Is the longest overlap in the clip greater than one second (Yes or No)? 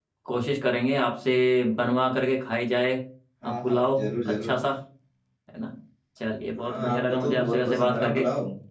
Yes